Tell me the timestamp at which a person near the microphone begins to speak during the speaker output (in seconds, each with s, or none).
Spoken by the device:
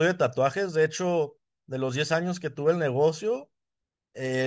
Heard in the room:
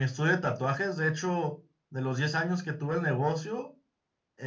none